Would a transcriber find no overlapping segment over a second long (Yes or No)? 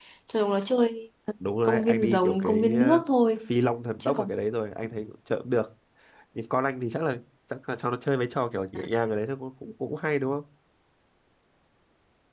No